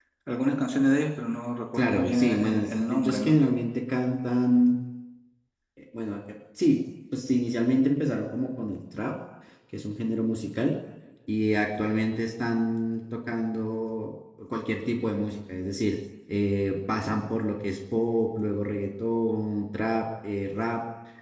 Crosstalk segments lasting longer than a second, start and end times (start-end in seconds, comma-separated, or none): 1.7-3.4